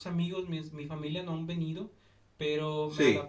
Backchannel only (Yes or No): Yes